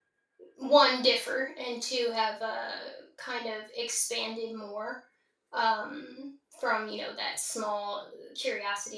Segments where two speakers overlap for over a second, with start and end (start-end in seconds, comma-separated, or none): none